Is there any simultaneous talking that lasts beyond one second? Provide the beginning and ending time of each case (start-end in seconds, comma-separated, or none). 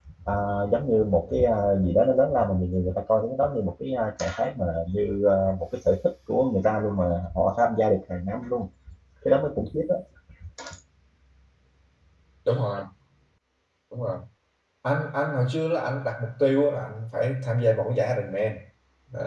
none